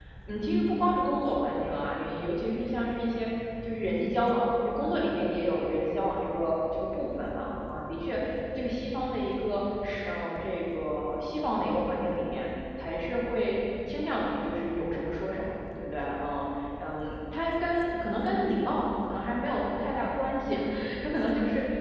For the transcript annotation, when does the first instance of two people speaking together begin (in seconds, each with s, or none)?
none